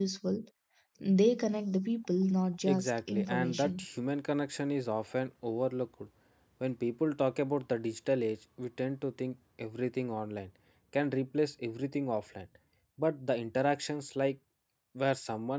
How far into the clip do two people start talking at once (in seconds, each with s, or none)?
2.6 s